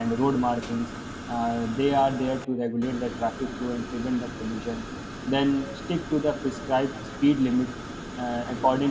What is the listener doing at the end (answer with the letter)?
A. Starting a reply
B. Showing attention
B